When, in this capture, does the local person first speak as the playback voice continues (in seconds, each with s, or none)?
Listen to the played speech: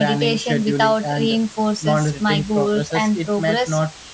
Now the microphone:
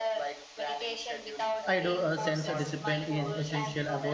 1.7 s